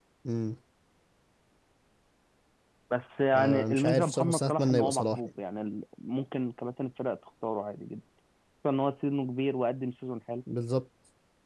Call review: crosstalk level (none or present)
present